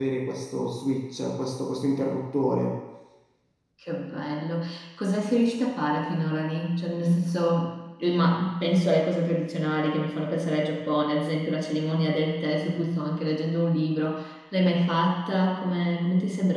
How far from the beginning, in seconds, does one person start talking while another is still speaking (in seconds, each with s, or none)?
none